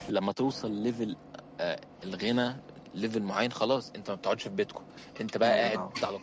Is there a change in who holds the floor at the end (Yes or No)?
No